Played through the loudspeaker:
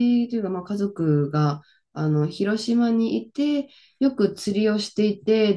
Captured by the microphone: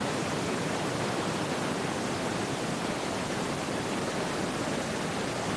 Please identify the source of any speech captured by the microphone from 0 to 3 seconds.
neither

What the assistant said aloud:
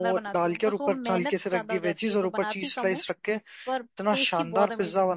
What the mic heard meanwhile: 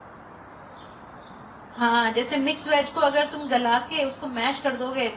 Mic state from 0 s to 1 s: neither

